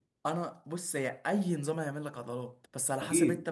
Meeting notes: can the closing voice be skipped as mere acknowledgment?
Yes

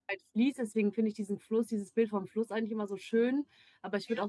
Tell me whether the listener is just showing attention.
Yes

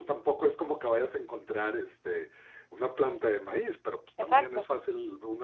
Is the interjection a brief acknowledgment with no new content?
Yes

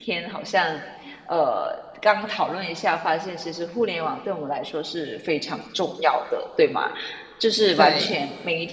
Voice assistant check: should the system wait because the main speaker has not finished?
Yes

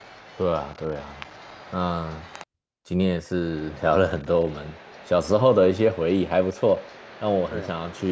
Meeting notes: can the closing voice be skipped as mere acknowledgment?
Yes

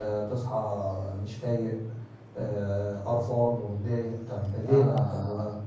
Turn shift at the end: Yes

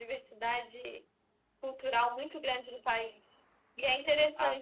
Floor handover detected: No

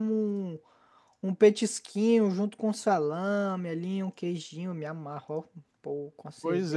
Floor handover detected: Yes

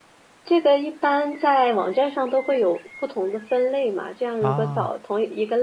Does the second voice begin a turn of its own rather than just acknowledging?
No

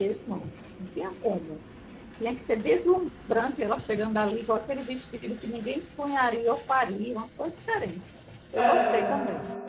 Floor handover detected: Yes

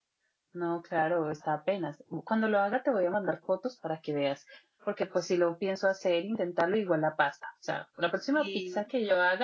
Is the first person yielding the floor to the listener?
No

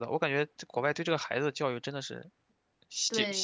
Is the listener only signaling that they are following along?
No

